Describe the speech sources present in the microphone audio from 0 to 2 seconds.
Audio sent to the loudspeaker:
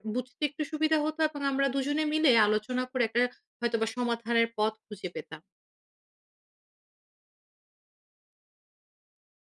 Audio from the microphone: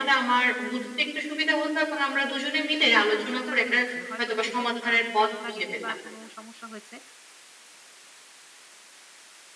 echo only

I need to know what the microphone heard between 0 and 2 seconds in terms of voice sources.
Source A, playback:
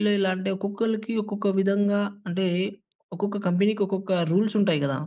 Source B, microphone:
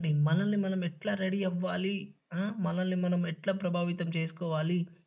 user only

